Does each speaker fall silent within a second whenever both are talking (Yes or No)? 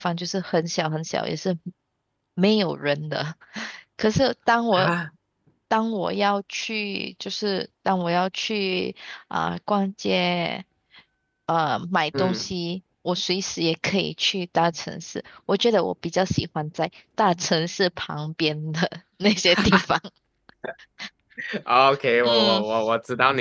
Yes